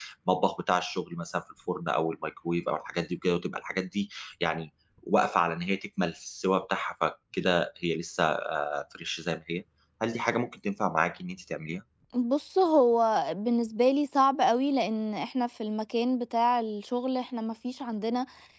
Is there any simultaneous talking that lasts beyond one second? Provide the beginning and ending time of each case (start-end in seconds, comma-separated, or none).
none